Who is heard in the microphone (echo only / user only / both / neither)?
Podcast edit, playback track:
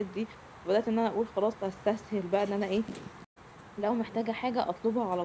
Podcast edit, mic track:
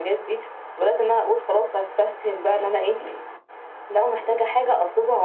echo only